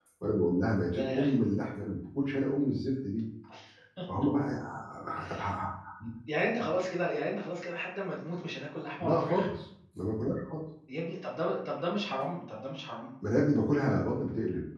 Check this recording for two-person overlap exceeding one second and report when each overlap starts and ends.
none

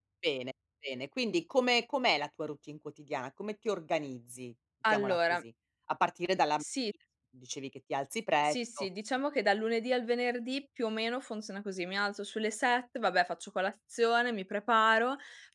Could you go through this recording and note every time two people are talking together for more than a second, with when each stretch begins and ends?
none

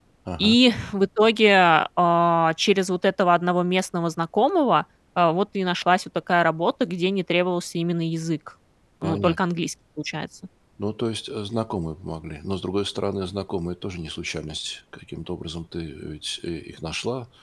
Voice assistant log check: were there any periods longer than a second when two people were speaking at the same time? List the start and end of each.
none

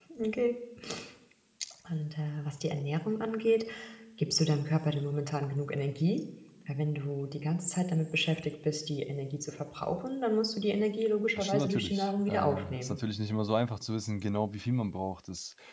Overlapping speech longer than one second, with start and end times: 11.4-13.0

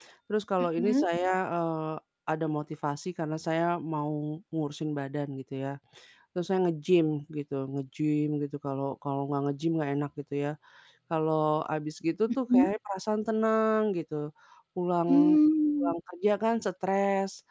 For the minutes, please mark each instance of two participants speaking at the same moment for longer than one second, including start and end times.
none

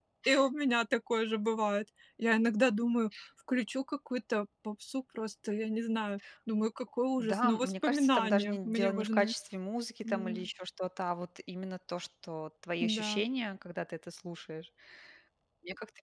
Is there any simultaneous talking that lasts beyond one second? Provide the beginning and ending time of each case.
7.2-9.3

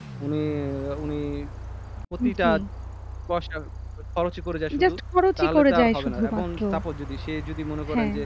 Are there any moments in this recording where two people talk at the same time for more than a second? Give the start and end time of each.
5.4-6.6

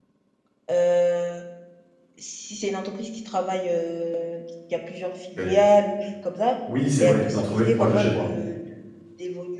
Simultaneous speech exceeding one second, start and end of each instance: 7.0-8.2

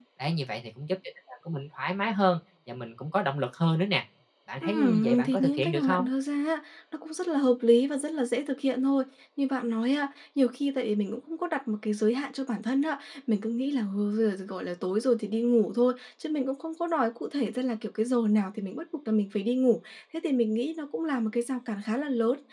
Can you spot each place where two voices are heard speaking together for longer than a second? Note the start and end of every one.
4.6-6.1

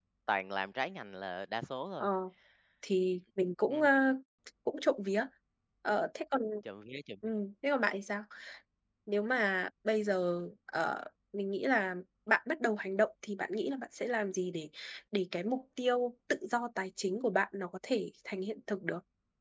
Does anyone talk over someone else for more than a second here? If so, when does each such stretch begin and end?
none

